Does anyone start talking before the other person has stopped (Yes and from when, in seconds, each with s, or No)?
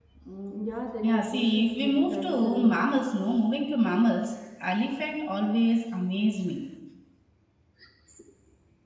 Yes, from 1.0 s